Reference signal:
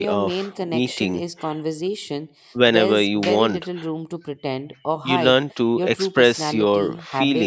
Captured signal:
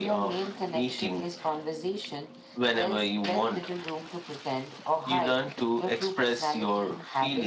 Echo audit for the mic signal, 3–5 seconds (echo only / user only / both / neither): echo only